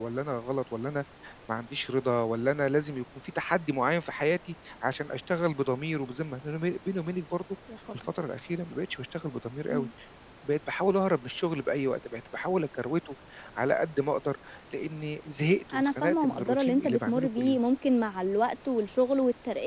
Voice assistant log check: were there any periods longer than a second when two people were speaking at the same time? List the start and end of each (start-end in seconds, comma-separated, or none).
15.7-17.6